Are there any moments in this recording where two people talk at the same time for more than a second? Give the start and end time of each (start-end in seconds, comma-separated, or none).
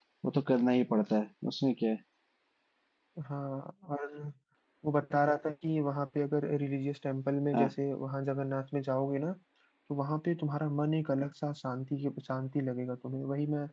none